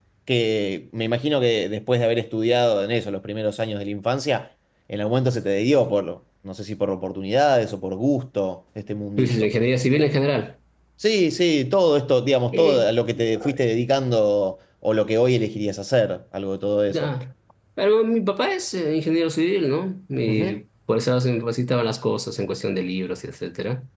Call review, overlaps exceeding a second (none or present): none